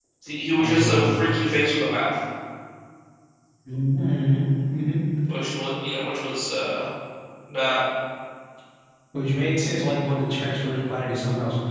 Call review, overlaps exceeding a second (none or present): none